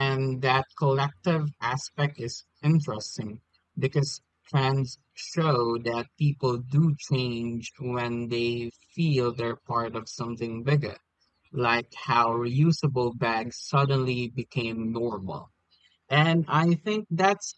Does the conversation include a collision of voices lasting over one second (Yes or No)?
No